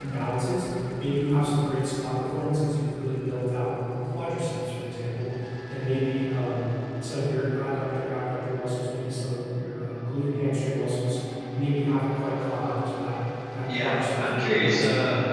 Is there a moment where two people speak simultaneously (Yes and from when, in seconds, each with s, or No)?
Yes, from 13.7 s